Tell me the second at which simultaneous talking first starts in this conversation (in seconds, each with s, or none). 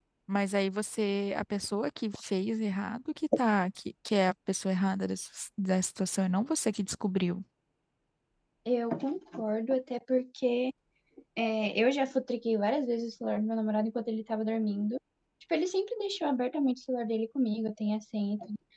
none